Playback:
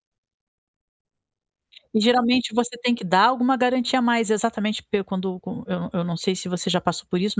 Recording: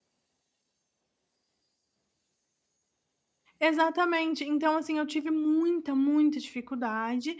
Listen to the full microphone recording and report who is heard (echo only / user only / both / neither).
user only